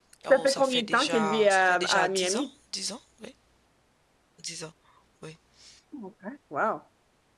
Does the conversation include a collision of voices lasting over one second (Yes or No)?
Yes